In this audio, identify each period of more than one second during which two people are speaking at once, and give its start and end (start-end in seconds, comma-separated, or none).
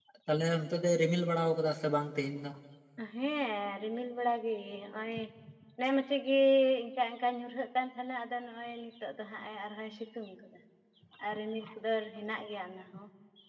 none